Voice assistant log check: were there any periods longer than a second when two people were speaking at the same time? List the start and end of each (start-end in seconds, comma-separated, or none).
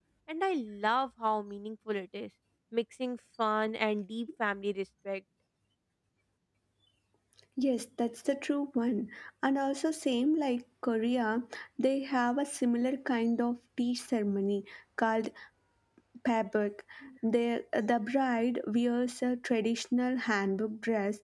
none